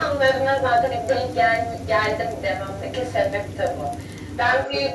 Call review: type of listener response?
taking over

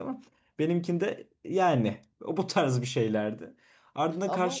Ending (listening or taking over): listening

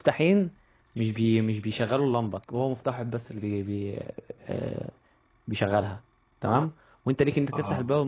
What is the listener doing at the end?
listening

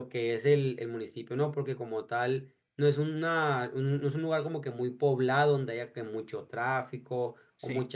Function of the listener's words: listening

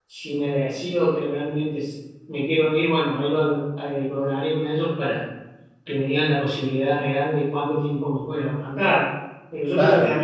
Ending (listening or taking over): listening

